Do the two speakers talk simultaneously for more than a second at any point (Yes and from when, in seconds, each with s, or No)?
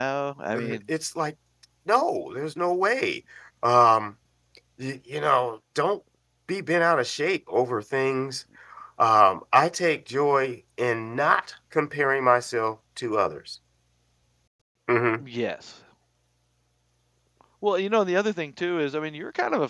No